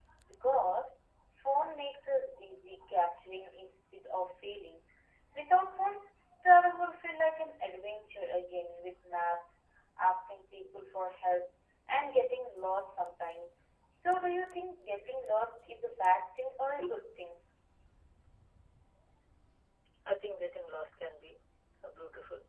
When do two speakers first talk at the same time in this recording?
none

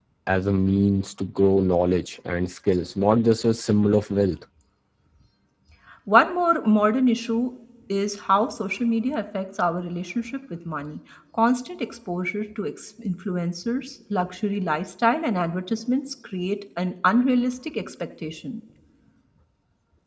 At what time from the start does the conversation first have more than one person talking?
none

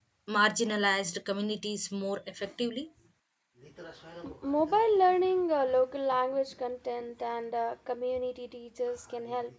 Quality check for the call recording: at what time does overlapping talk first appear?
none

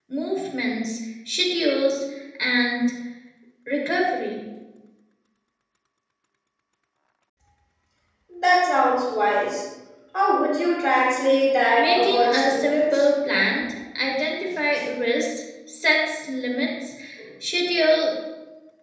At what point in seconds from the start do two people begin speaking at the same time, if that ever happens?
11.8 s

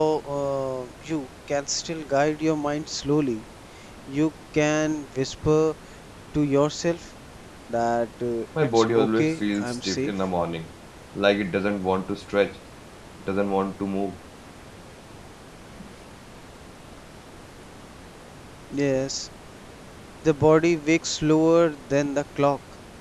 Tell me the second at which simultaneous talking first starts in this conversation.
8.6 s

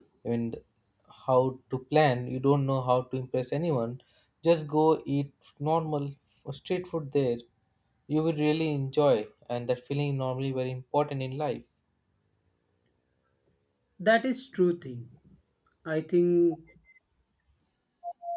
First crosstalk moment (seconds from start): none

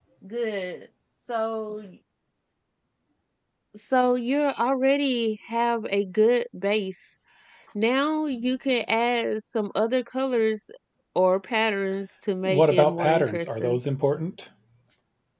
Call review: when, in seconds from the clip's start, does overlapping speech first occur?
12.4 s

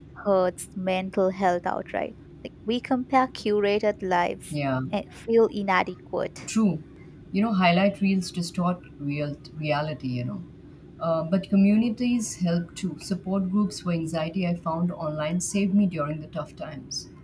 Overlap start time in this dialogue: none

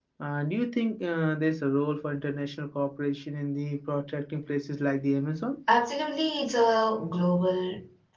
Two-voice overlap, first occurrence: none

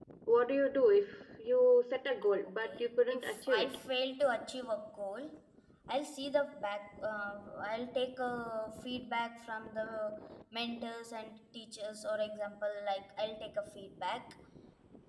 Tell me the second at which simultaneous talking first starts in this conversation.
2.4 s

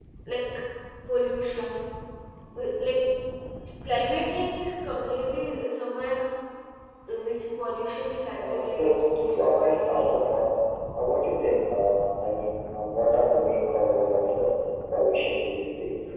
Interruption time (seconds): 8.3 s

